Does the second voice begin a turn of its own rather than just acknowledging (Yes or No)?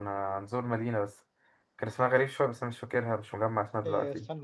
Yes